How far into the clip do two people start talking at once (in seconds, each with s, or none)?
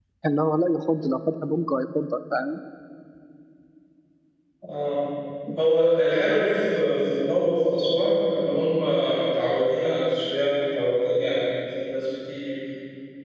none